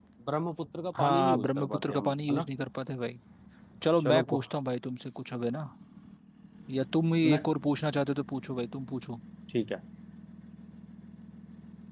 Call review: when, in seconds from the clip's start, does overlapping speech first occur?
1.0 s

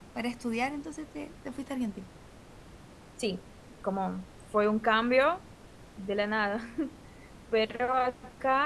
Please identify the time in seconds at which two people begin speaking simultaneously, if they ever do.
none

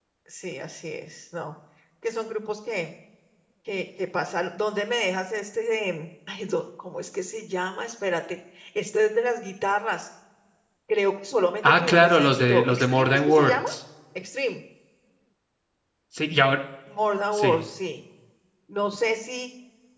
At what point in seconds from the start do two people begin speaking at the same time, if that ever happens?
11.6 s

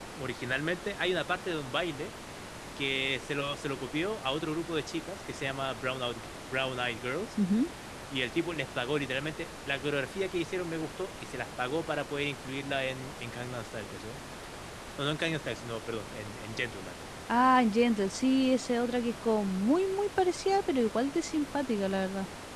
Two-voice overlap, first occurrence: none

